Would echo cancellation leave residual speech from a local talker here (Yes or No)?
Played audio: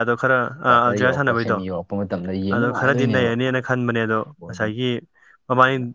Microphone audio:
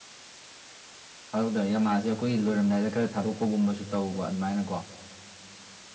Yes